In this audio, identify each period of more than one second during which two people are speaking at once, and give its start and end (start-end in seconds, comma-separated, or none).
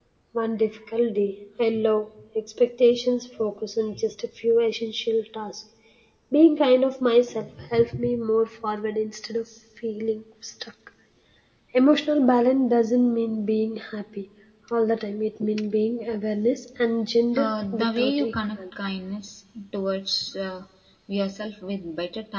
17.4-18.6